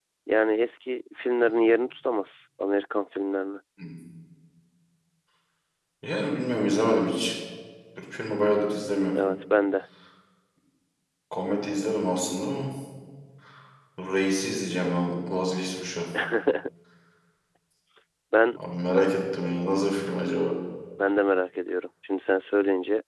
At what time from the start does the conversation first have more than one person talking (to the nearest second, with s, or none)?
none